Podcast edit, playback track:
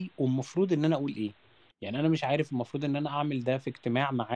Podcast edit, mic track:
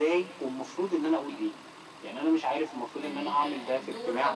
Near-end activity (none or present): present